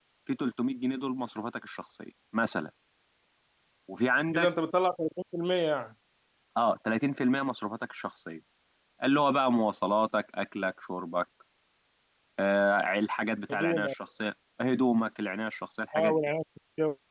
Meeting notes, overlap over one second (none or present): none